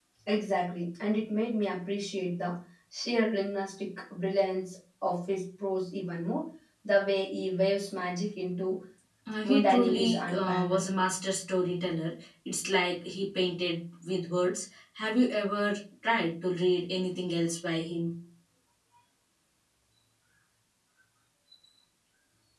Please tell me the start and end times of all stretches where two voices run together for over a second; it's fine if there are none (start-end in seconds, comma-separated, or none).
9.4-10.9